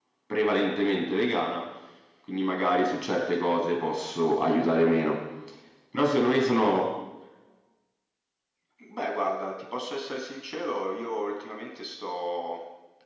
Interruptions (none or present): none